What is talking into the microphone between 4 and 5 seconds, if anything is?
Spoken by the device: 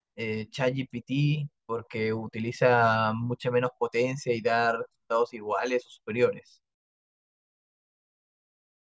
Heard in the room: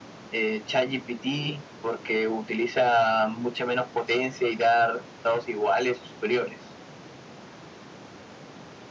echo only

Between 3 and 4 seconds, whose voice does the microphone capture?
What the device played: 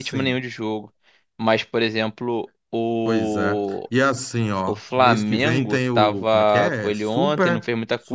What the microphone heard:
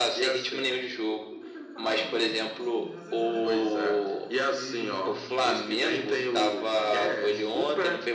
both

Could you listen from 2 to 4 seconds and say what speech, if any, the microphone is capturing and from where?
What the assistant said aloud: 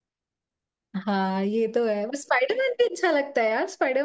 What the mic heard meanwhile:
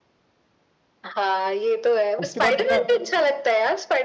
both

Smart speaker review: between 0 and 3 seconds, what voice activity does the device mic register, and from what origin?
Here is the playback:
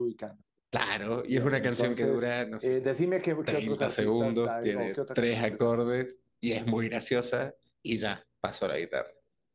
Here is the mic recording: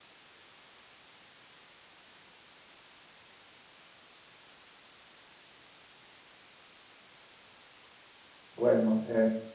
neither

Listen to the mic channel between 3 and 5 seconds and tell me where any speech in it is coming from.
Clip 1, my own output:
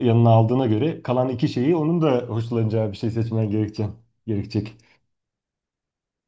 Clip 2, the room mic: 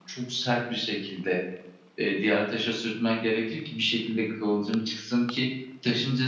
user only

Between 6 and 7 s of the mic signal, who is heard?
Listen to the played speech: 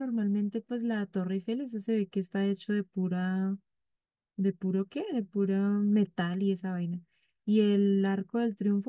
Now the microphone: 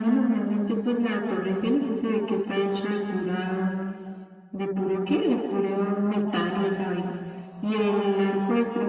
echo only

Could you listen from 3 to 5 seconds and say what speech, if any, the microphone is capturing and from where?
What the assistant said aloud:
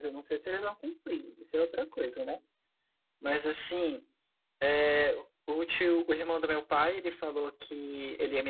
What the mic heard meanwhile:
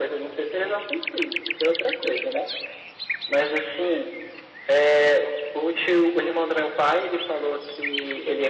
echo only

